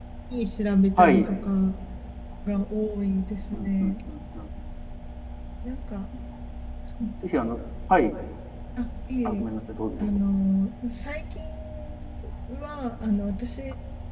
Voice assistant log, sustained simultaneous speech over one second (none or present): none